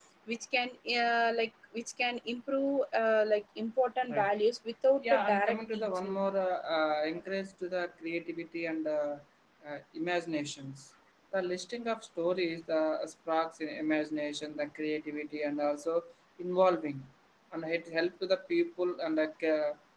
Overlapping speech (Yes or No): Yes